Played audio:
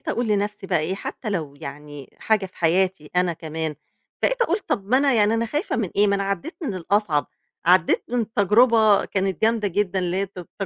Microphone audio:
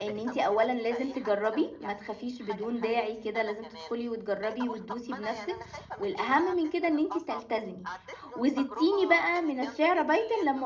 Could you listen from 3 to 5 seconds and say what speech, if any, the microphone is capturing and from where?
both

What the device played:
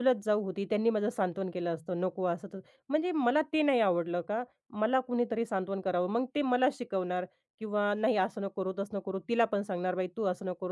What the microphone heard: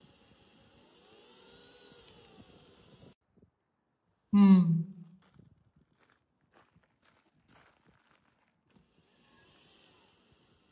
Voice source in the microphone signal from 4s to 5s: user only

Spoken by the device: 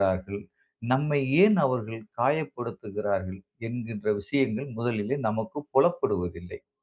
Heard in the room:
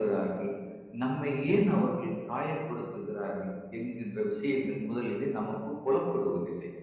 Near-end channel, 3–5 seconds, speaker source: echo only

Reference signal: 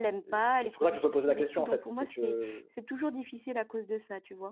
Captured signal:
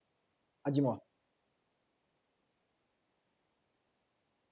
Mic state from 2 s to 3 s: neither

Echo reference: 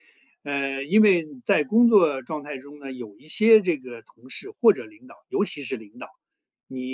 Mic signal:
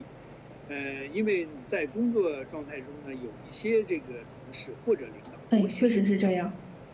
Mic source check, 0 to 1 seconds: echo only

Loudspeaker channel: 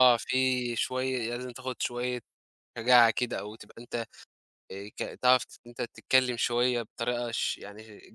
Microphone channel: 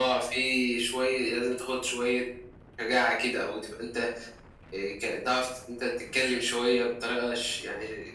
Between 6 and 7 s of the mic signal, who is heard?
echo only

